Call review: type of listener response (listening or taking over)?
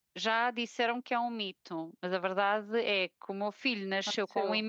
listening